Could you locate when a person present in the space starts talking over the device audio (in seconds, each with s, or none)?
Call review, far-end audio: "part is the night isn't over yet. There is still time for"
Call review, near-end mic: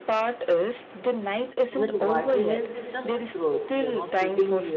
1.7 s